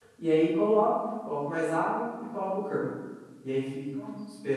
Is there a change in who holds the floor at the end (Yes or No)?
No